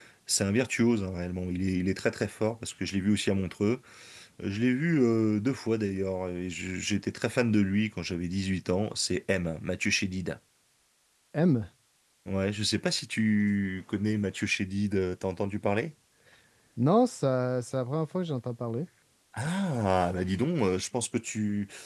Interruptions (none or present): none